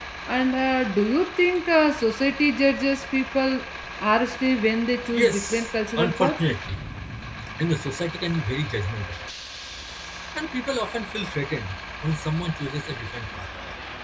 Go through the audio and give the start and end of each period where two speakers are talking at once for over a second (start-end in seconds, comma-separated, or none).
5.1-6.4